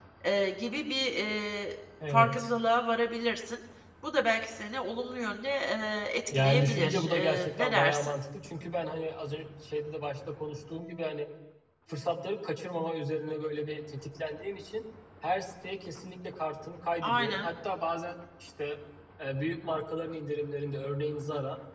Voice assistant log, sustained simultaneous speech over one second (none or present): present